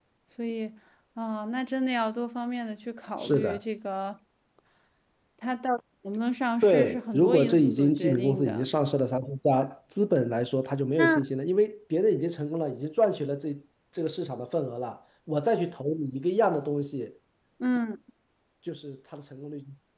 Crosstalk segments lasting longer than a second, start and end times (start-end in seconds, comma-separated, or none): 6.6-8.7